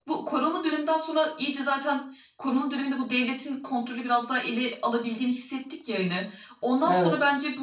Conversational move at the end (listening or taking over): listening